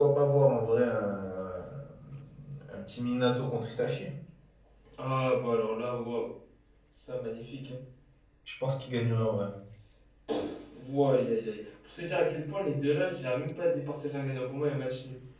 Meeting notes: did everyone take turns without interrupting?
Yes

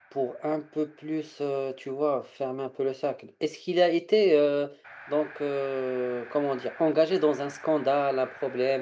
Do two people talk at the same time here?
No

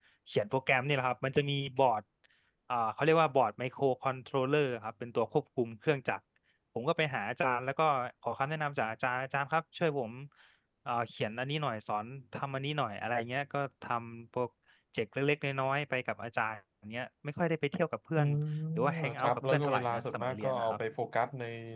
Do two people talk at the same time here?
Yes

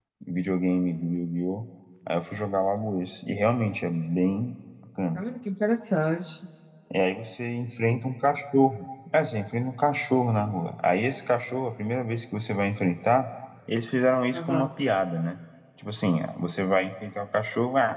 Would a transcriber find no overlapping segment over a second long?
Yes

